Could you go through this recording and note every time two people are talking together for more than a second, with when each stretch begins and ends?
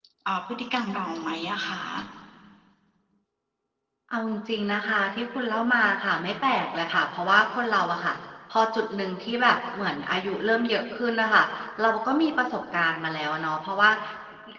none

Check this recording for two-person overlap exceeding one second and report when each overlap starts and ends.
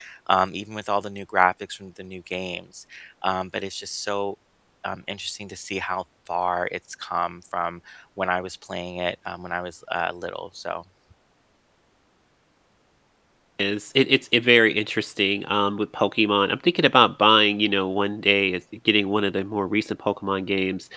none

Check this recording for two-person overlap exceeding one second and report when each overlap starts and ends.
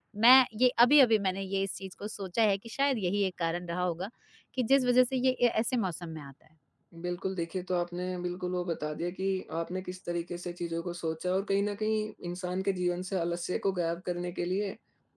none

